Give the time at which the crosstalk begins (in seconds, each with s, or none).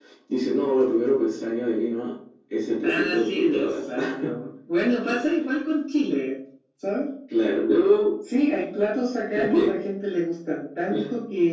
2.8 s